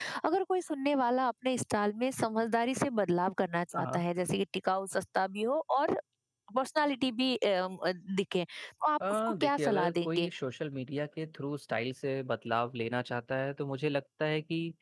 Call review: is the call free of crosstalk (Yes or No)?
No